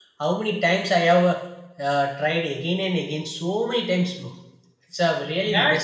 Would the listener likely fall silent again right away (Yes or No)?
No